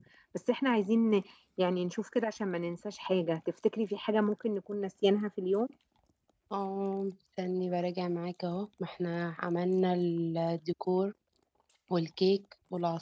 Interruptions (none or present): none